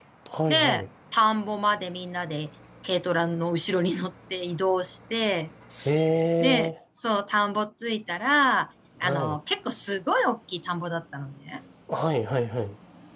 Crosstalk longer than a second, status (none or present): none